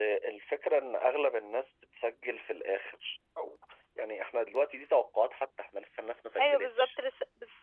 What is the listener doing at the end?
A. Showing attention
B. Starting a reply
B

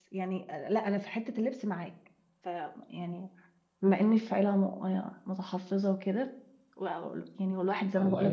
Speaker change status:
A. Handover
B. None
B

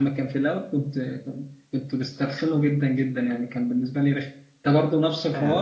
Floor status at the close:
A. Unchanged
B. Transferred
B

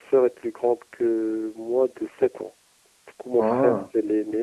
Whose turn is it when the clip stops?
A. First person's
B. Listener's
A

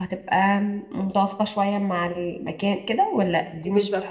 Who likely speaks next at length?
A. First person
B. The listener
B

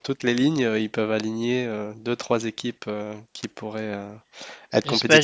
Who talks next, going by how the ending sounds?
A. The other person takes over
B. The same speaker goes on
A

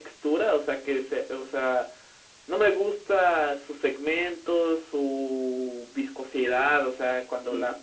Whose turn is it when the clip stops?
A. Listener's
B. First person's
B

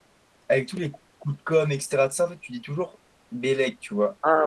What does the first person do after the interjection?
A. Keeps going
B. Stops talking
B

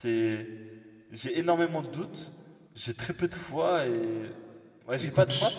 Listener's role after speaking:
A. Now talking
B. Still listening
A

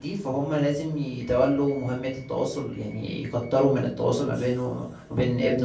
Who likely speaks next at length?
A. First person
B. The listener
A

